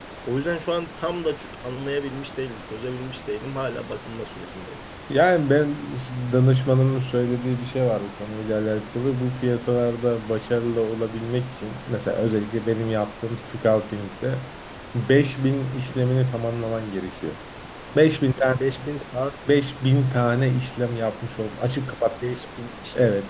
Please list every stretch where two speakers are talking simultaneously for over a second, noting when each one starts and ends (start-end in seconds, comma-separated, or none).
none